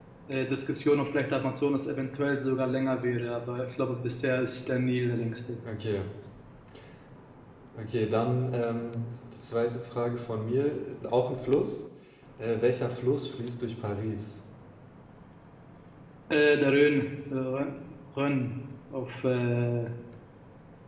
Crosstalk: none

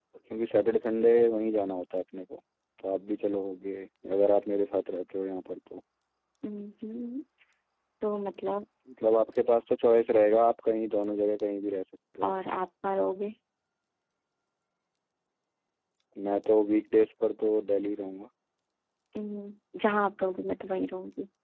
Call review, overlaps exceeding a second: none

